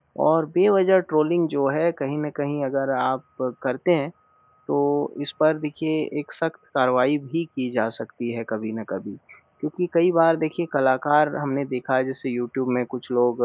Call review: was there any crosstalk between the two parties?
No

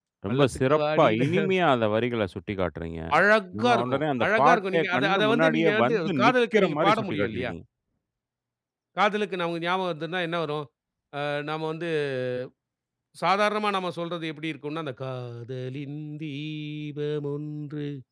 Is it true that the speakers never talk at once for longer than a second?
No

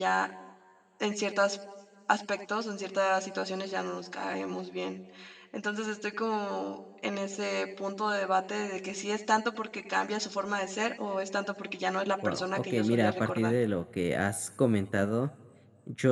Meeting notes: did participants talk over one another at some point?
Yes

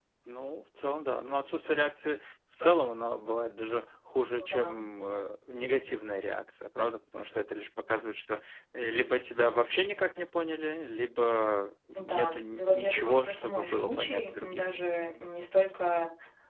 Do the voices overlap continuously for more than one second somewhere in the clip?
Yes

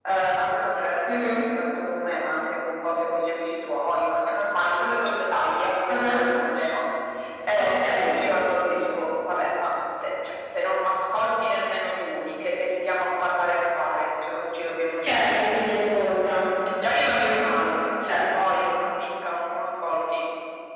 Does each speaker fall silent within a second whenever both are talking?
Yes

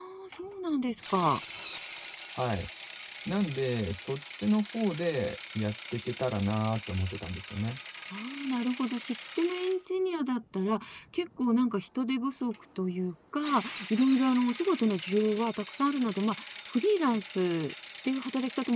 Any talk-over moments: No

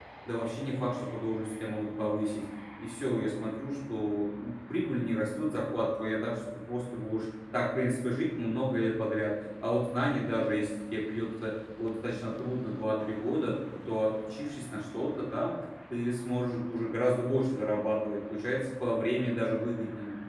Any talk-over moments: No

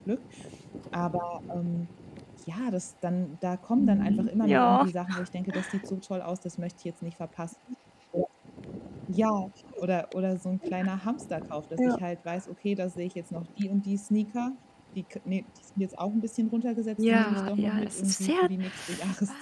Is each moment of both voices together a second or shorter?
No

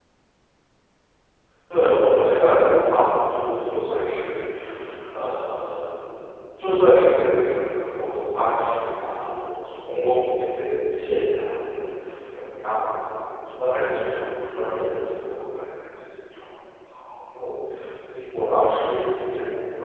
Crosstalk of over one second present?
No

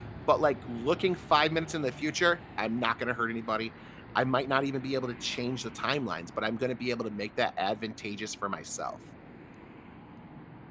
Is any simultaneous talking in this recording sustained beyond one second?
No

